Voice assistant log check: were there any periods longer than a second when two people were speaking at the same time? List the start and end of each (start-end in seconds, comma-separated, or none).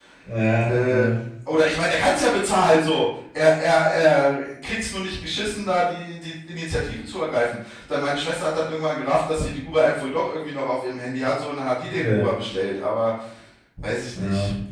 none